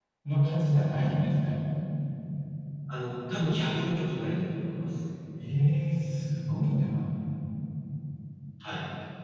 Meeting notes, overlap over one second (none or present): none